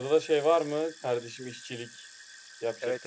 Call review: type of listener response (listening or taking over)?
taking over